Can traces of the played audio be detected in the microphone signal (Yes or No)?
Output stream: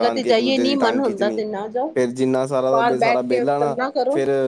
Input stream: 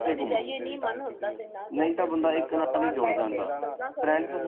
Yes